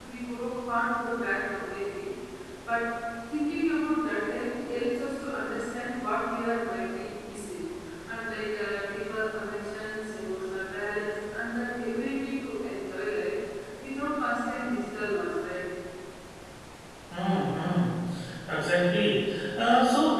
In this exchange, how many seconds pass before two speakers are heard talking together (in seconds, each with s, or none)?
none